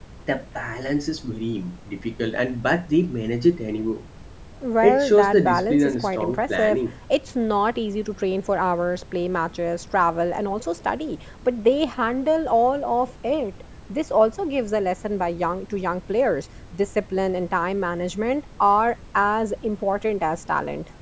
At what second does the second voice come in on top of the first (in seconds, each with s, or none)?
4.8 s